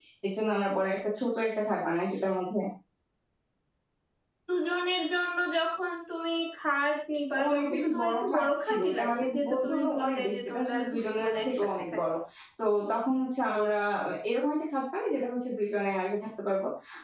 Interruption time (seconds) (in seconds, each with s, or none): 7.4 s